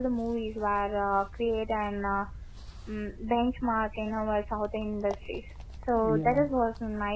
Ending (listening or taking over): listening